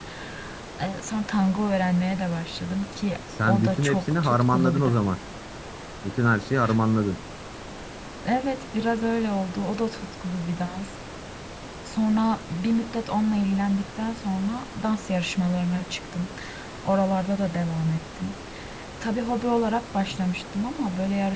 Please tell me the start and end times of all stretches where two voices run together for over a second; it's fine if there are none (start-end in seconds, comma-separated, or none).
3.5-5.0